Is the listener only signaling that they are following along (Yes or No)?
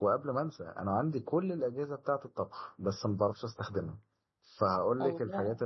Yes